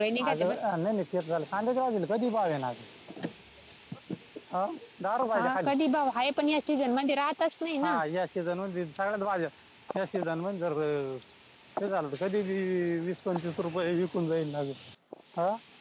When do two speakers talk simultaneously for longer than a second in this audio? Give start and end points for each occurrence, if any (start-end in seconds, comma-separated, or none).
none